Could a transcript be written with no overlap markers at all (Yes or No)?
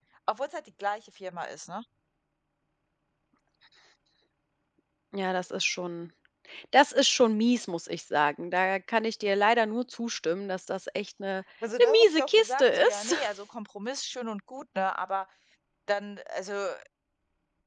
No